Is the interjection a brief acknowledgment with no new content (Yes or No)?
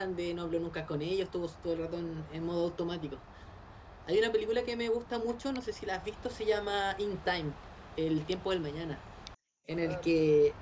Yes